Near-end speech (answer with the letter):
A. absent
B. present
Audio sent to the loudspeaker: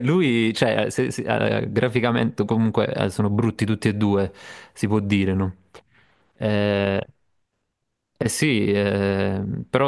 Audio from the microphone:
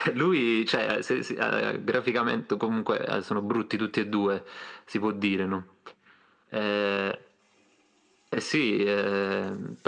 A